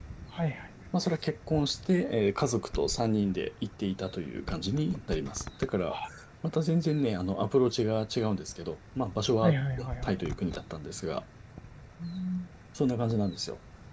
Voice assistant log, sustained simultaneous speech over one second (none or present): none